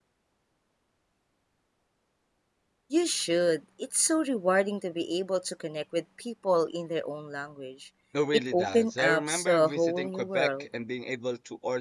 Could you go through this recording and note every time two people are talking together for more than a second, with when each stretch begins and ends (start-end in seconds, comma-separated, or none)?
8.5-10.7